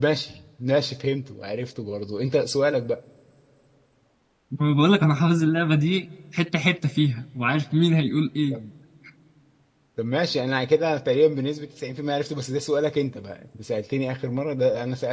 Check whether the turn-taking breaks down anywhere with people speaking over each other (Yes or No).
No